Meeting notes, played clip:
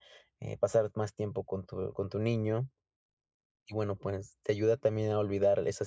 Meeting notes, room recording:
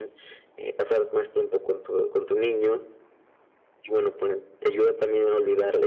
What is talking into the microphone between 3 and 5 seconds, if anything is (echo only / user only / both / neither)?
echo only